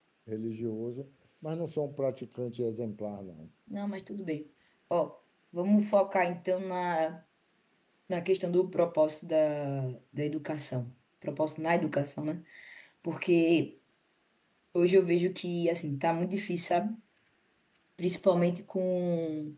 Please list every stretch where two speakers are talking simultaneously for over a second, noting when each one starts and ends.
none

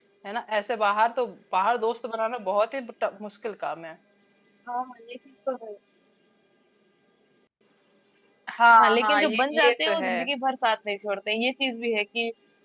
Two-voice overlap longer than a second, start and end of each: 8.8-10.1

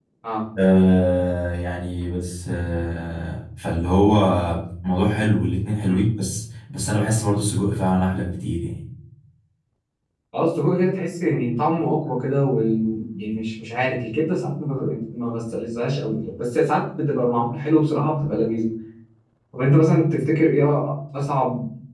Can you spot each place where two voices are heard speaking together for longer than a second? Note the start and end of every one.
none

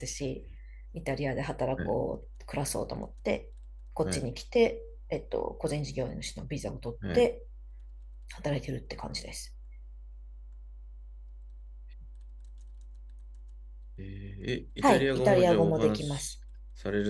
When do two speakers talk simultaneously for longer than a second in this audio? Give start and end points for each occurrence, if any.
14.8-16.3

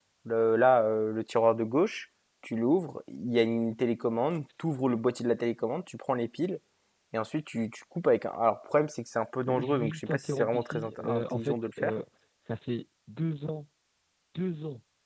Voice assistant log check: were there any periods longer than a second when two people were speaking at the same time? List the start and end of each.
9.4-11.9

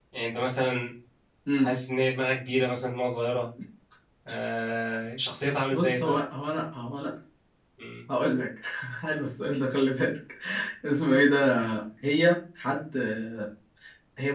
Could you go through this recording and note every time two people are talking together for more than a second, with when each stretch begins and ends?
none

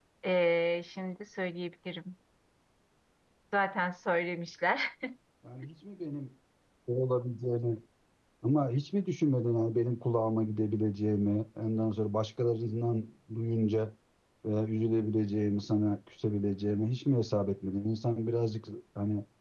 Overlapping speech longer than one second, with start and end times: none

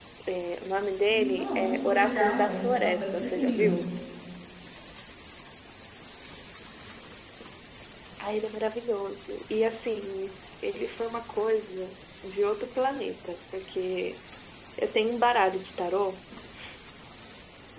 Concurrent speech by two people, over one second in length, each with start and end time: 1.1-3.8

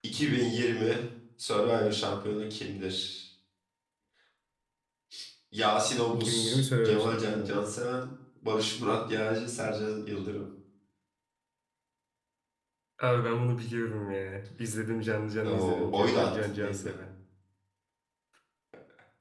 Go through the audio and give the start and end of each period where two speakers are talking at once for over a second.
6.1-7.6, 15.4-16.9

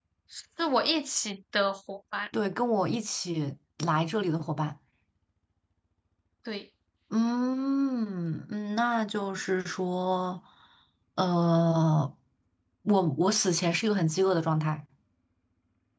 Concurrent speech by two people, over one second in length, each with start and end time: none

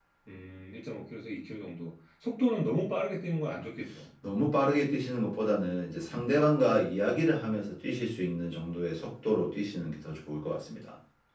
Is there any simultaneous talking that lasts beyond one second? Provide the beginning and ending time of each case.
none

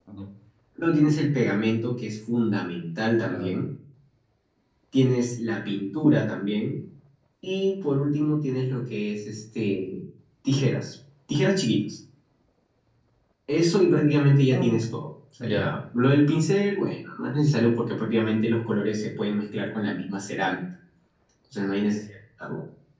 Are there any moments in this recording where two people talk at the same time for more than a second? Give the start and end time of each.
none

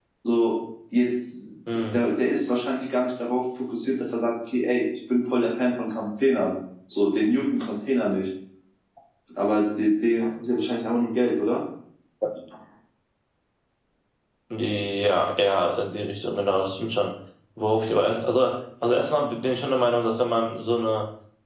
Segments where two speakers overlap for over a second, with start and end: none

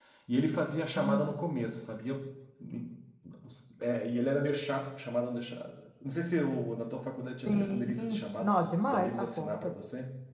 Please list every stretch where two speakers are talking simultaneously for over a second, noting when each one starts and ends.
7.5-9.7

